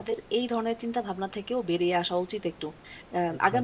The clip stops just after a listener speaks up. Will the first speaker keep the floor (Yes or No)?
Yes